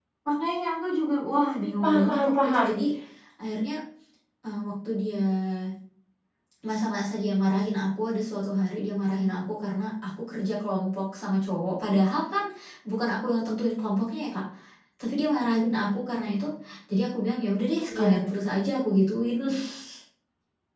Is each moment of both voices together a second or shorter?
No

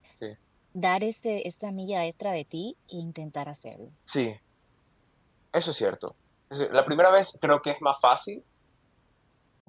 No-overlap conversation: Yes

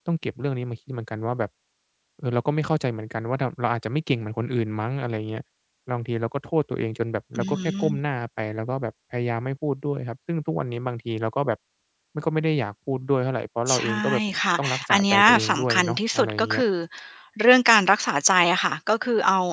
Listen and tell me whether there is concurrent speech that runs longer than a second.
Yes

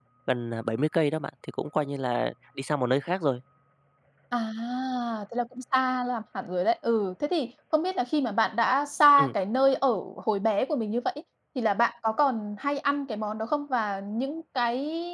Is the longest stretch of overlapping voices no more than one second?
Yes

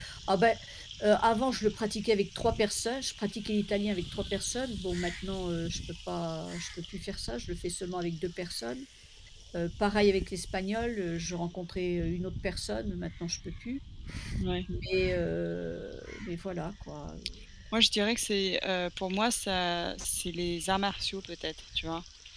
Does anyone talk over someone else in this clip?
No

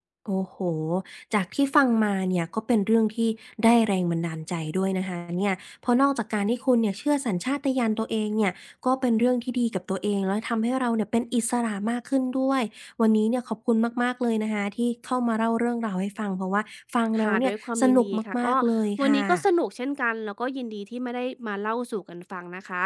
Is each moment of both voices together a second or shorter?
No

